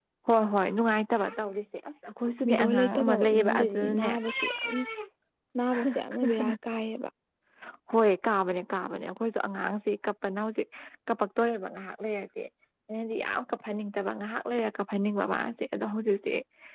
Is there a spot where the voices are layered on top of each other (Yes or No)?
Yes